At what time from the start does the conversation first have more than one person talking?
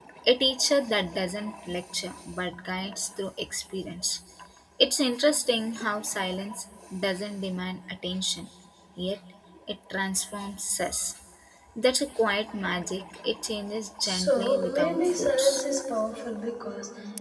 14.0 s

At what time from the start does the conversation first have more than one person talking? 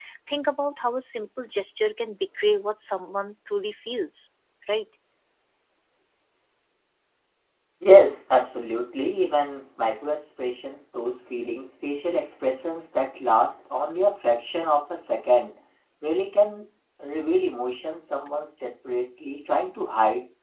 none

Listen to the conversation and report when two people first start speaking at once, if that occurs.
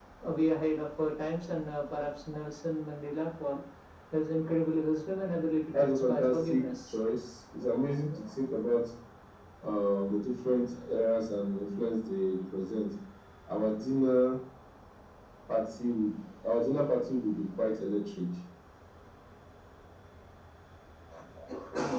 5.7 s

